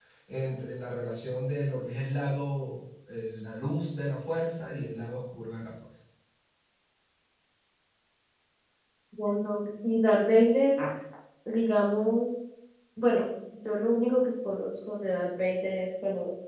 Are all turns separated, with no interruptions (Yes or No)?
Yes